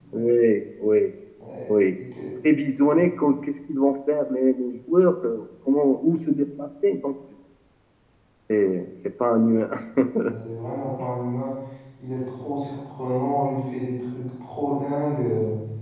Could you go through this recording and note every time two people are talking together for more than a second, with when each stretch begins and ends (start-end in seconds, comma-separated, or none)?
none